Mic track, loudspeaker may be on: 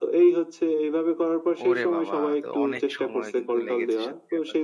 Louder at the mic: echo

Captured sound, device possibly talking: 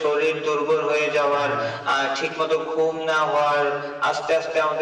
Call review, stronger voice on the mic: echo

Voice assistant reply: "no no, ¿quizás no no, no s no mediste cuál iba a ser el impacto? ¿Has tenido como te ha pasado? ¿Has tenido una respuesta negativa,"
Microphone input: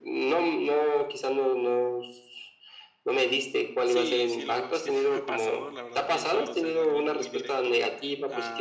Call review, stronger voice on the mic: echo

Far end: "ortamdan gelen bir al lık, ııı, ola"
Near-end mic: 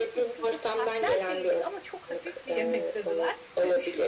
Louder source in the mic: echo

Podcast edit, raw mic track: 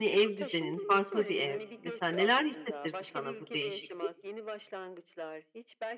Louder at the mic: user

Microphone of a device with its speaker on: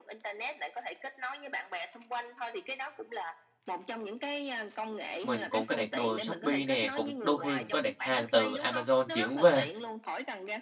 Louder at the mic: user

